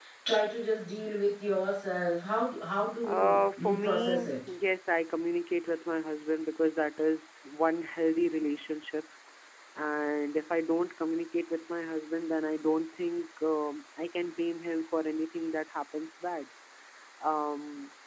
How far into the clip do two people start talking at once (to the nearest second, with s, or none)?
3 s